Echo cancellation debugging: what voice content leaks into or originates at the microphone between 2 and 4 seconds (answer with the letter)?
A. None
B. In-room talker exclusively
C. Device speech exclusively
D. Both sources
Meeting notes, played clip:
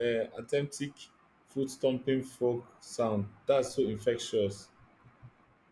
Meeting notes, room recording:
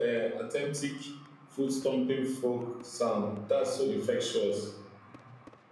C